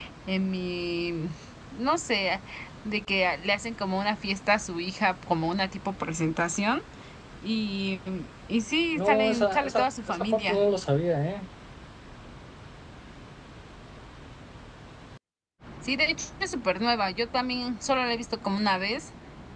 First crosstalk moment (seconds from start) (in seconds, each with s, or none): 9.0 s